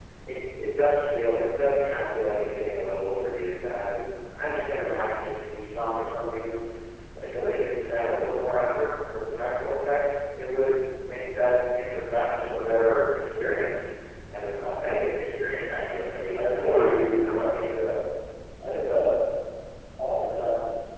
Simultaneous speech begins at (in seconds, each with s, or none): 16.4 s